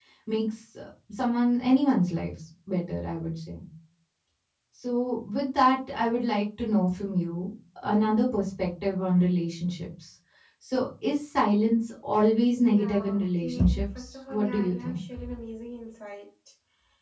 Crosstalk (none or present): present